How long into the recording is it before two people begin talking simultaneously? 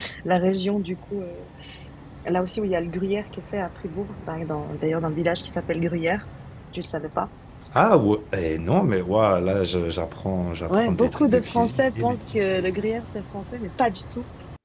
10.7 s

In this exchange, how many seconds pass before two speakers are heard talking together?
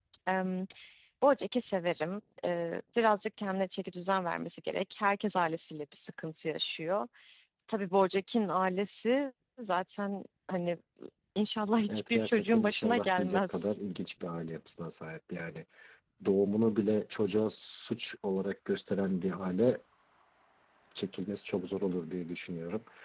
11.9 s

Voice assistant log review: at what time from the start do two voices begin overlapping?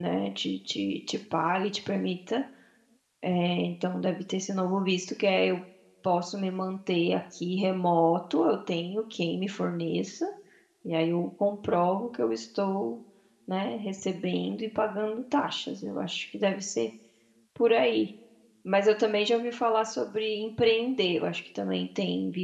none

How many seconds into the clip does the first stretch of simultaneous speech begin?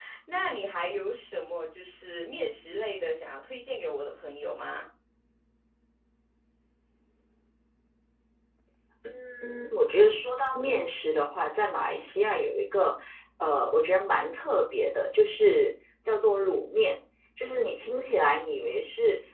none

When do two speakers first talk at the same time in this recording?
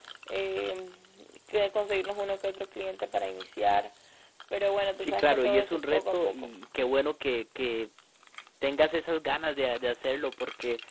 5.0 s

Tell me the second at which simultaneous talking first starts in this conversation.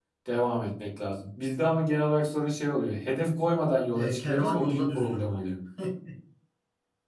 3.9 s

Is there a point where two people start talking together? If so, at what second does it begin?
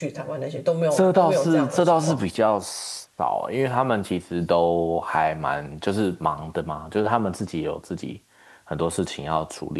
0.9 s

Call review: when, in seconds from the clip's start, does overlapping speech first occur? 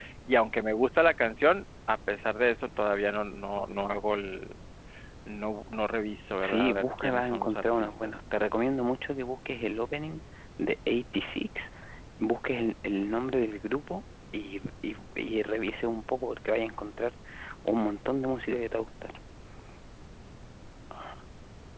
6.4 s

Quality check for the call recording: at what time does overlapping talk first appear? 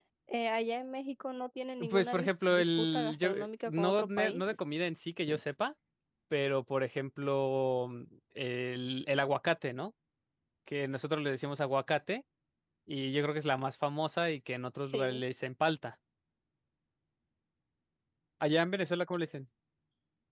1.9 s

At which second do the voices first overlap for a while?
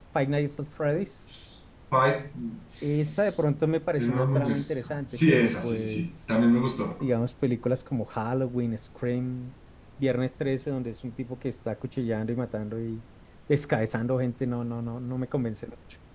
4.0 s

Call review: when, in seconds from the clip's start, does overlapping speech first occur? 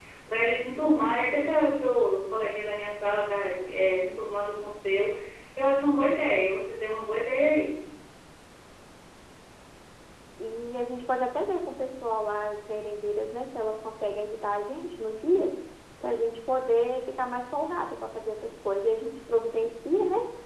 none

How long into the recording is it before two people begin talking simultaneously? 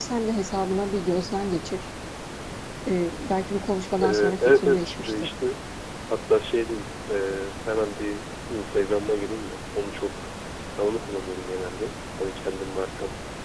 4.0 s

